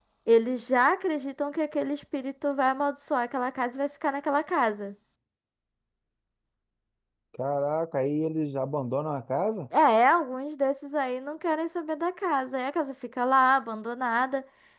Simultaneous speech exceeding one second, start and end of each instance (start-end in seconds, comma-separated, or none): none